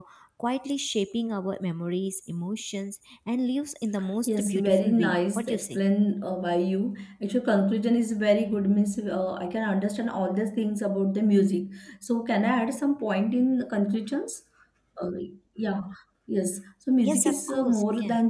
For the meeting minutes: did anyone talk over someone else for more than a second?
Yes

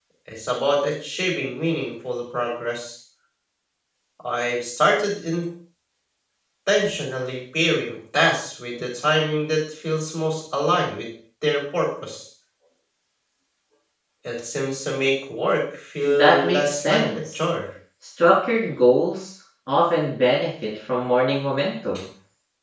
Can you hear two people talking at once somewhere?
Yes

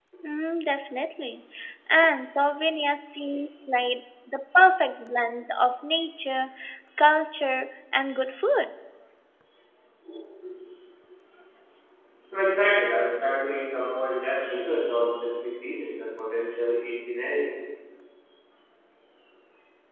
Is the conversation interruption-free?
Yes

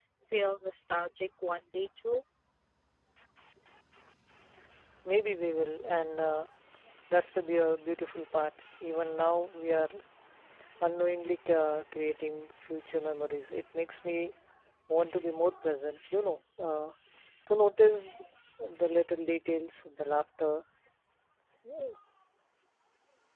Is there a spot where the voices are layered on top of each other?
No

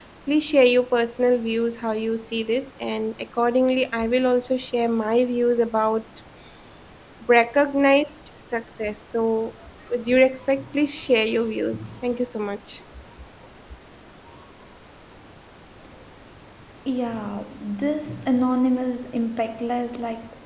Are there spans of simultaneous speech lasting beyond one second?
No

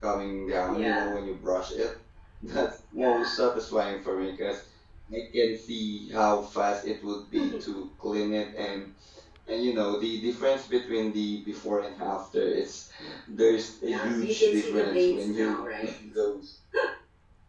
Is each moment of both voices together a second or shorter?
No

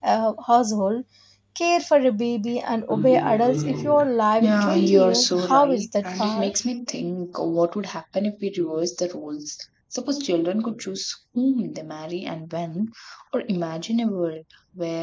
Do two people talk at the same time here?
Yes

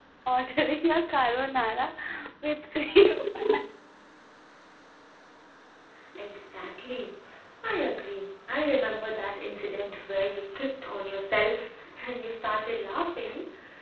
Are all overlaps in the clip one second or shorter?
Yes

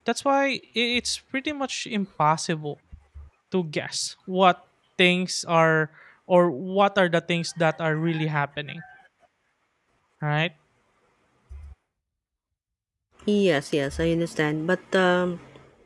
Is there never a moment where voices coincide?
Yes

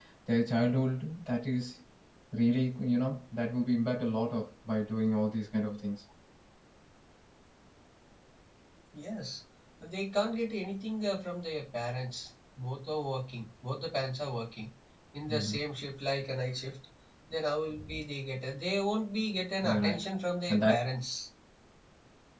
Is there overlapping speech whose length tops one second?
No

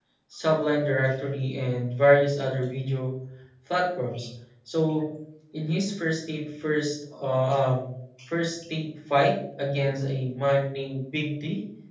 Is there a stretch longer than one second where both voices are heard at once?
No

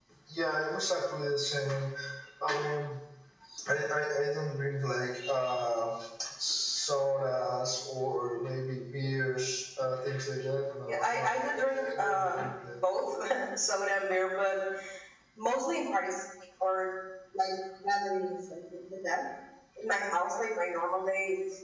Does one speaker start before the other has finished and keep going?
Yes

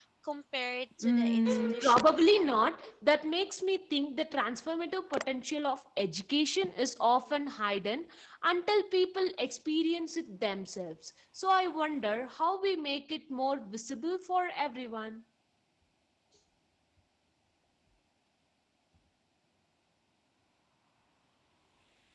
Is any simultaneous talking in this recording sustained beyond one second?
Yes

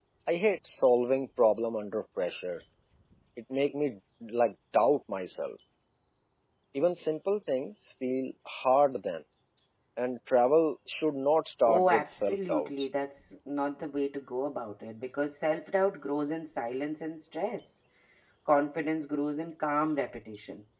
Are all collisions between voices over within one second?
No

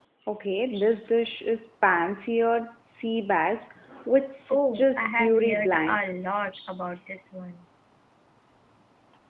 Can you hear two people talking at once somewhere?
Yes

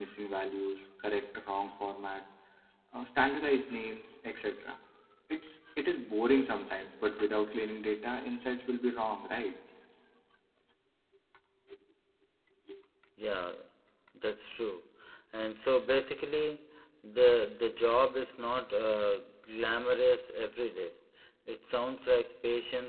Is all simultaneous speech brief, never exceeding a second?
Yes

